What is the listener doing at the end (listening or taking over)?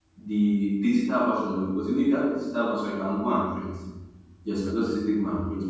listening